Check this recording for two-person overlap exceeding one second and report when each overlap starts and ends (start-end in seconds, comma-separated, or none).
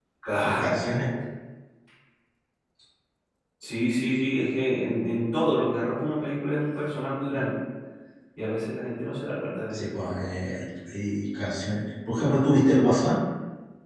none